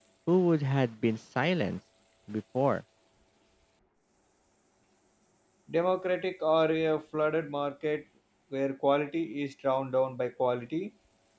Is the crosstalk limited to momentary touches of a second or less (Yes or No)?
Yes